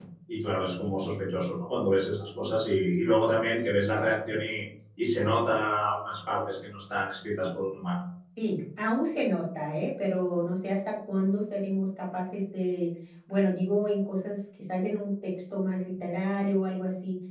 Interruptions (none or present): none